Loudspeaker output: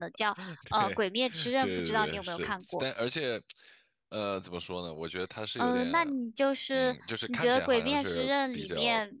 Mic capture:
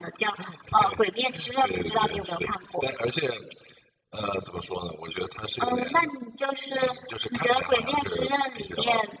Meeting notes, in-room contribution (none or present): none